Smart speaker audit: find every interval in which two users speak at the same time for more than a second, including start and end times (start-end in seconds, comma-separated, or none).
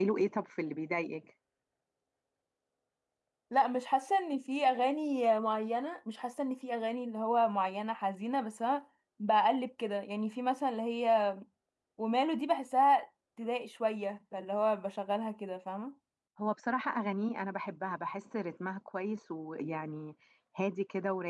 none